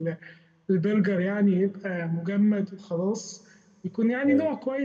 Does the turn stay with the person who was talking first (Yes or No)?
Yes